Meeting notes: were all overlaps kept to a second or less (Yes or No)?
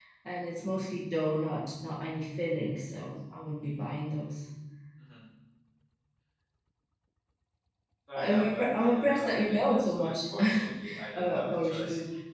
No